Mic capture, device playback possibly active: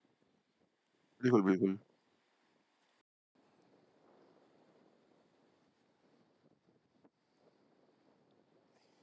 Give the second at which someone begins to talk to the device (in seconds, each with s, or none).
1.2 s